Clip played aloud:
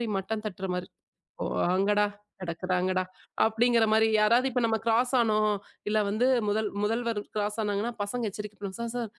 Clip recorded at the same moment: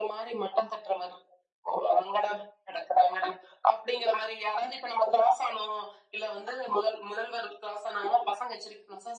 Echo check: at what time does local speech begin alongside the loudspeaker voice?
none

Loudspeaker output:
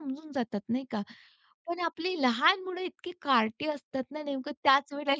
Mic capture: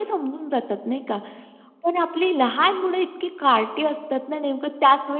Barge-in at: none

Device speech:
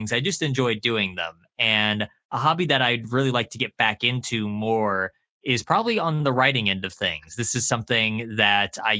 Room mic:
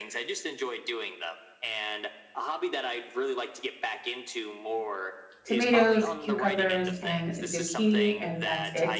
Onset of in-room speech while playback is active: 5.4 s

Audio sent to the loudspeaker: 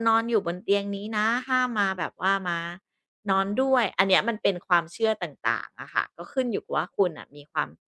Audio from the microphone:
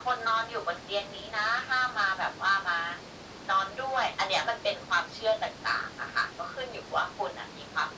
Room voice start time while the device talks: none

